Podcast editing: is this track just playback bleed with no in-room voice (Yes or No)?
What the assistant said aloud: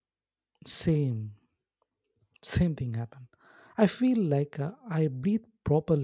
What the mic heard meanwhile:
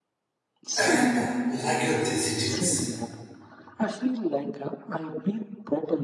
No